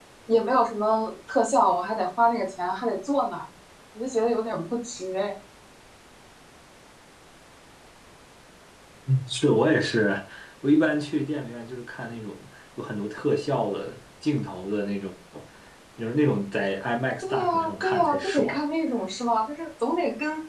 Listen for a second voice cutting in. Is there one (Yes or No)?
Yes